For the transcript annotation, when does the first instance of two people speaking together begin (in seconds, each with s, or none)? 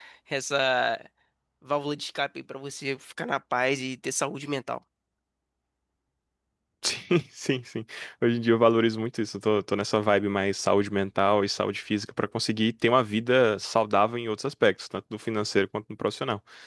none